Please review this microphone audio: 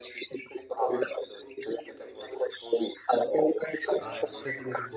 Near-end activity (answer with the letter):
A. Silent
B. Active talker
B